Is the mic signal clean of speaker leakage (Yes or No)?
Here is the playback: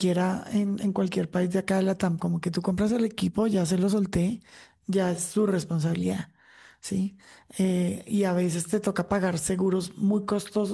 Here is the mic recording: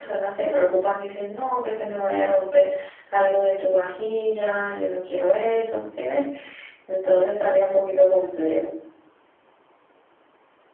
Yes